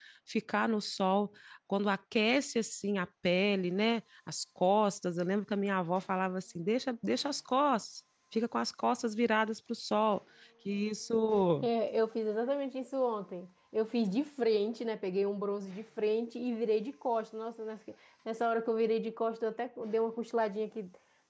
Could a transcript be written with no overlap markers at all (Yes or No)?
Yes